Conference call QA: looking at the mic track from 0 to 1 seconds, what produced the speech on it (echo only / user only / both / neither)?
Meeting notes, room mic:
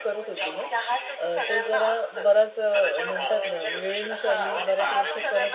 both